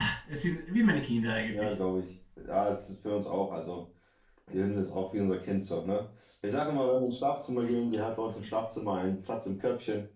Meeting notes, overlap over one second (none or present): none